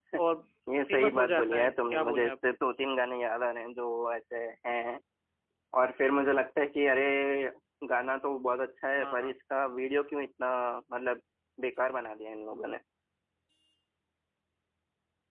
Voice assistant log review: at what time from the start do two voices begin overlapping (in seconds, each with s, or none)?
0.9 s